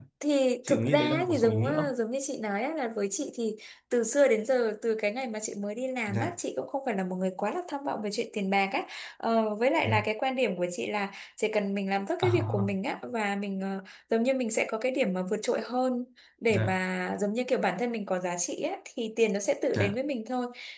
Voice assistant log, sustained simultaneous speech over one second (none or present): present